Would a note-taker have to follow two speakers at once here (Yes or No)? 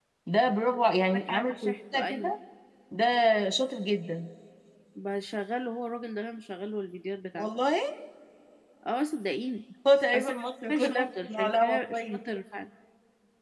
Yes